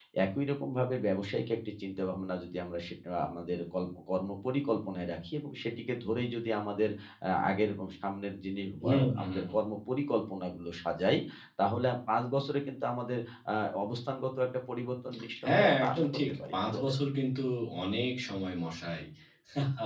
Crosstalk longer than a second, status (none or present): present